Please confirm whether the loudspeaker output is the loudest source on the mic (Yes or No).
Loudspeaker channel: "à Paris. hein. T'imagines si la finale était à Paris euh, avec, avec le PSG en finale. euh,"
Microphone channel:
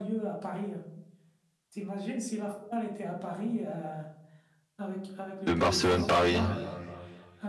No